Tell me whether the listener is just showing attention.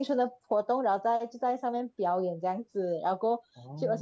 Yes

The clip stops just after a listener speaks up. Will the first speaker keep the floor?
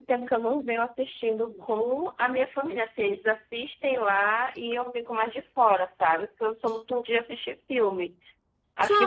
No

